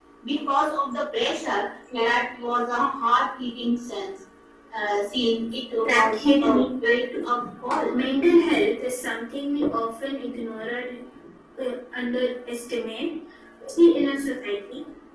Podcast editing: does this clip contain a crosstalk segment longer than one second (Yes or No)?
Yes